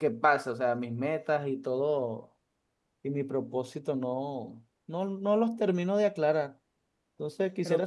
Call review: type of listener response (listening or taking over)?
listening